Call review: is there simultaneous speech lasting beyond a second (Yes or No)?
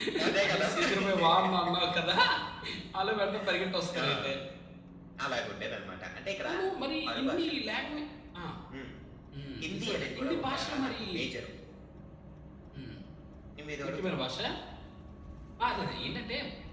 Yes